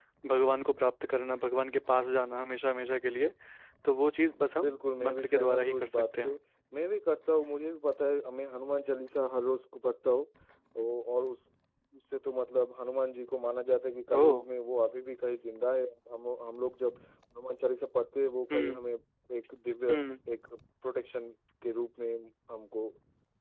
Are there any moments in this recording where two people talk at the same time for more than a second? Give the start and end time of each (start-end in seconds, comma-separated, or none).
4.6-6.3